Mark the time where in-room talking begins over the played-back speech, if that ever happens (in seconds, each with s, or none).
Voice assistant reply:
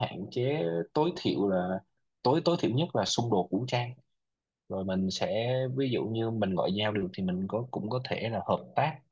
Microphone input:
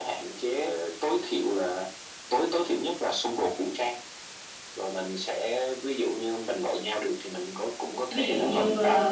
8.1 s